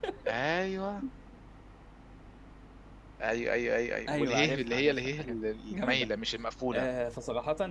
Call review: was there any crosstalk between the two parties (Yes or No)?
Yes